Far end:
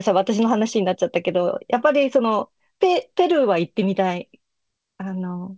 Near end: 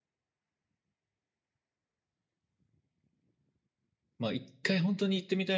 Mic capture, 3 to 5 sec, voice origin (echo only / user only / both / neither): user only